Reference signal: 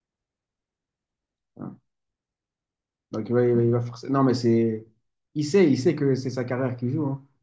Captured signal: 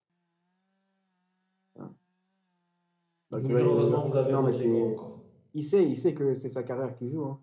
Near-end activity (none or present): present